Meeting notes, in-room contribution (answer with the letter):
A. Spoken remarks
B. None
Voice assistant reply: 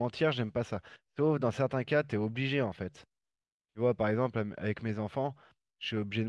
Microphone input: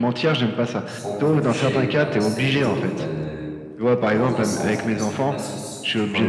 A